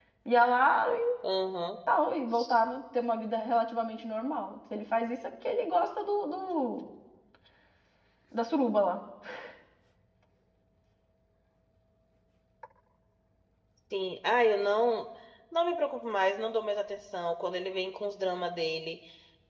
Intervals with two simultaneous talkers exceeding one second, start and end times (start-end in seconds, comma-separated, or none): none